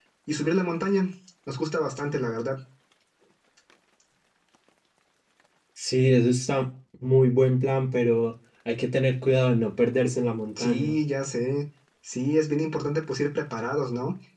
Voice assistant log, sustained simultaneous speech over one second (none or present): none